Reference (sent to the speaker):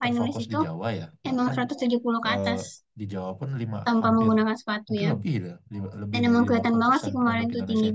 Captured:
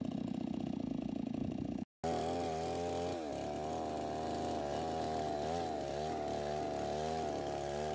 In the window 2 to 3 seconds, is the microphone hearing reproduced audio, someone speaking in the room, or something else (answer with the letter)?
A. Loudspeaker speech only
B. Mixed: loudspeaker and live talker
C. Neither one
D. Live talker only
C